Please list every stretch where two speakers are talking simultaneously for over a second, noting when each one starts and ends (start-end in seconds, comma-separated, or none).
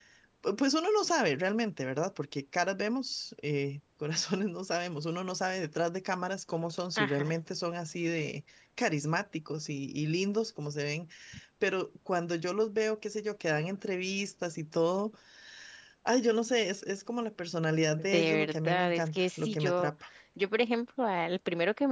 18.0-19.9